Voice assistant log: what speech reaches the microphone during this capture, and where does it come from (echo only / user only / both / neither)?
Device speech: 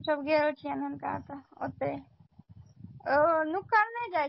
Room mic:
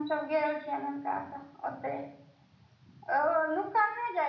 echo only